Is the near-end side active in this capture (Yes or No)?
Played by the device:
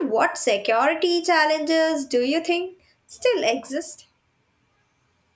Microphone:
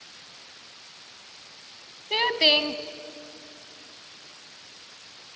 Yes